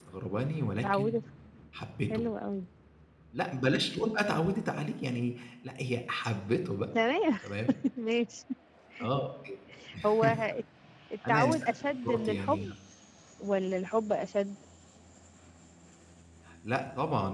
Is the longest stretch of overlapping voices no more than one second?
No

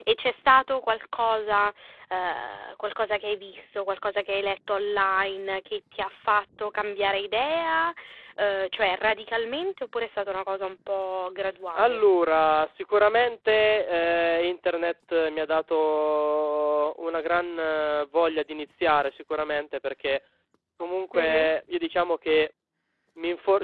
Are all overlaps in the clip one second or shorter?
Yes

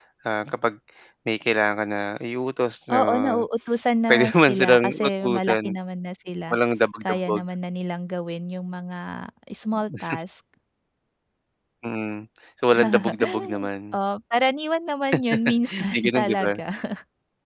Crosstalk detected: Yes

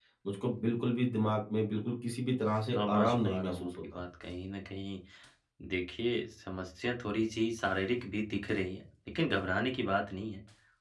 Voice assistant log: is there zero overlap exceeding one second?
No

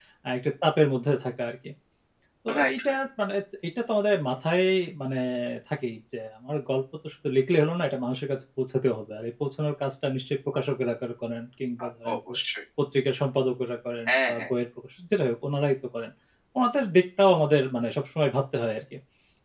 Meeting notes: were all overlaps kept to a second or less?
Yes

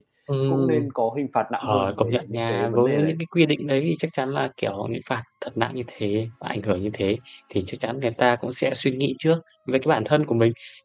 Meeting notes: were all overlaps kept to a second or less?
No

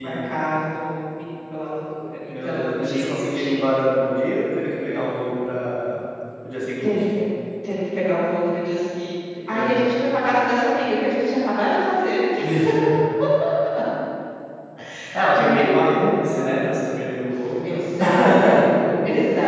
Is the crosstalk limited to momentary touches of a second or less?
No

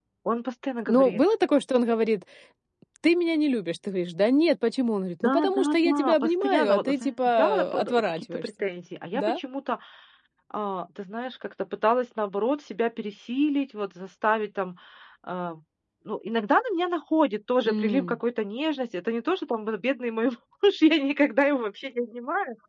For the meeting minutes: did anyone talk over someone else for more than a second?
Yes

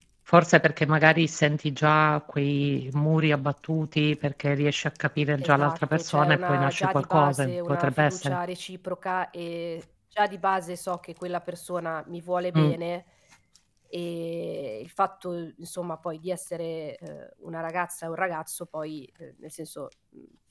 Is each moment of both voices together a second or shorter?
No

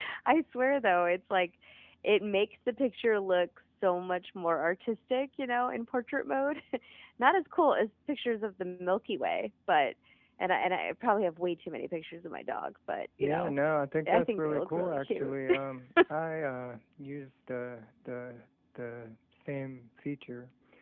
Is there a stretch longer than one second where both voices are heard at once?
Yes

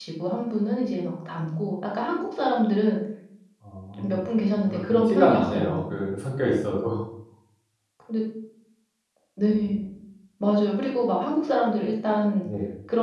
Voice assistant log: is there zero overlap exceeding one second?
No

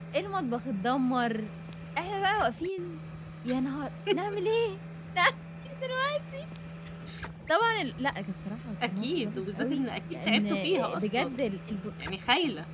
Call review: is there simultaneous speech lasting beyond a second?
Yes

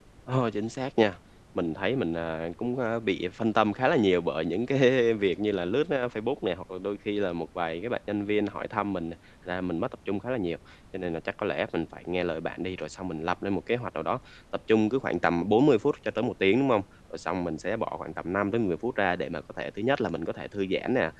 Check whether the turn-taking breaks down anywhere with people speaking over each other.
No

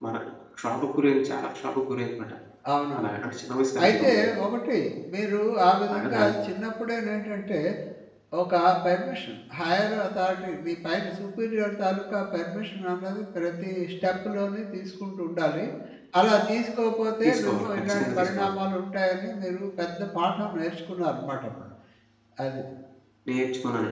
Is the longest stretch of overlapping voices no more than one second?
No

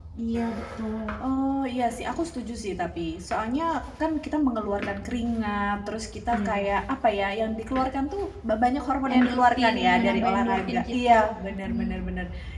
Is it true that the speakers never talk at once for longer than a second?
No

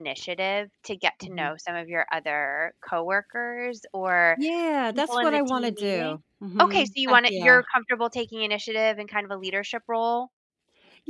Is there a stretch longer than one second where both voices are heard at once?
Yes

